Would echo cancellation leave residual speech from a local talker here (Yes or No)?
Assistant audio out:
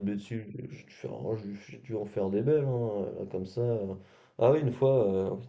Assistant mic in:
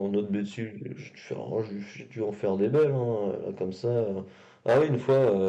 No